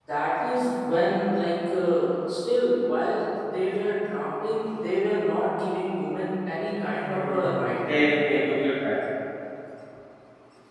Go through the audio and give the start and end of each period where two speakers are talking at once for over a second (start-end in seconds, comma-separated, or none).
7.0-8.3